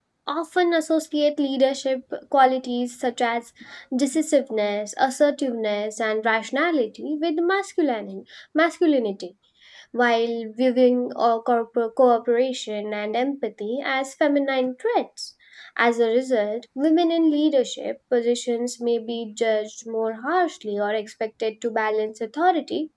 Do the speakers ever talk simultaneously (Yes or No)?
No